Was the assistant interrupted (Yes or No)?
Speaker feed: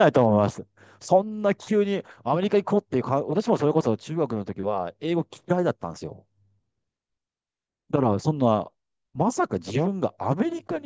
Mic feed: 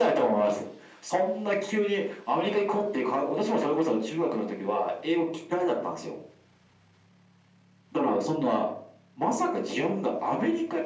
No